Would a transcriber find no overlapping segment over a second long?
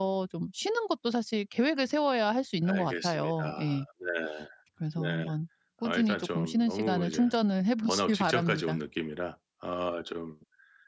No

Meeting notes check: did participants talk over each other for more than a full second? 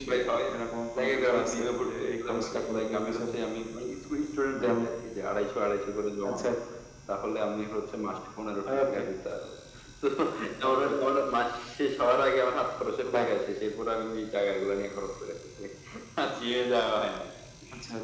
Yes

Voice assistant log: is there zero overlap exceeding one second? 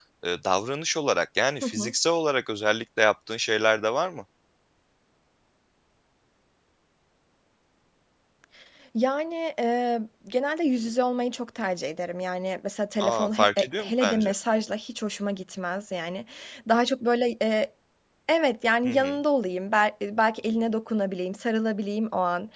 No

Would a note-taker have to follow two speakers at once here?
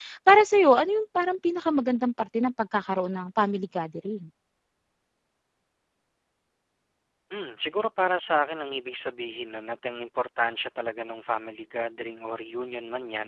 No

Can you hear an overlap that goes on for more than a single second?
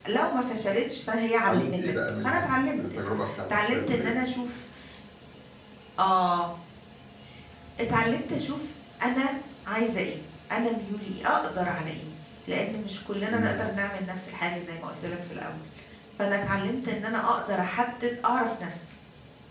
Yes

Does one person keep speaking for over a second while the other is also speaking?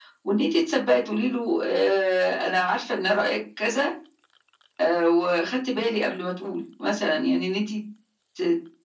No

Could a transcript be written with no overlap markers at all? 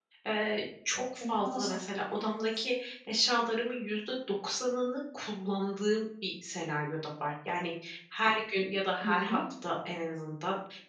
No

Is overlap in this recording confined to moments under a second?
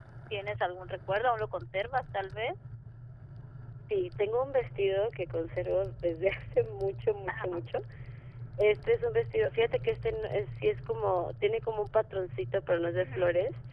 Yes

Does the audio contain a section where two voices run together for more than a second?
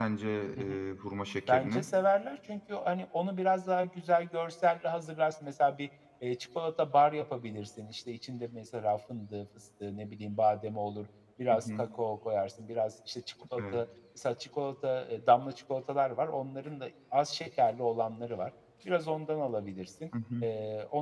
No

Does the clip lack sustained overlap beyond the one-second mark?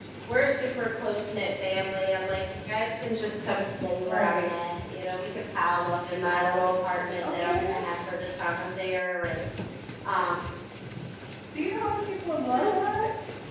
Yes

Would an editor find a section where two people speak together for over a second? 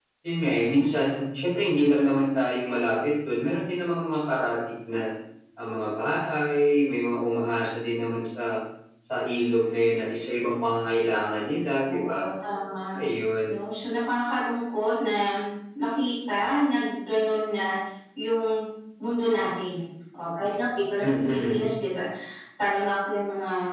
No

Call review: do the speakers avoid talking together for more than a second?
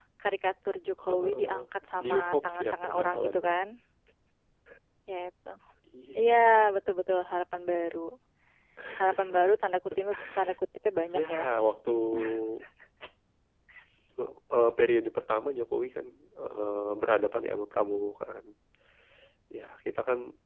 No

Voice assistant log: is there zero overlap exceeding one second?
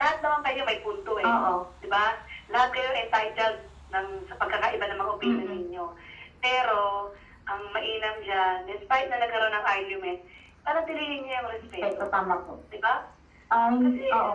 Yes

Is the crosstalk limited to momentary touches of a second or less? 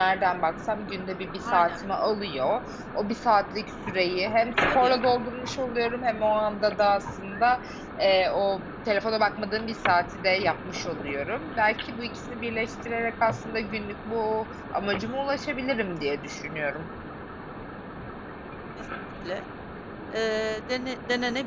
Yes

